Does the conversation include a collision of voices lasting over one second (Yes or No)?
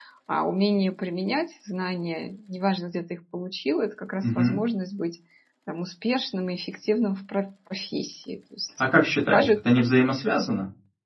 No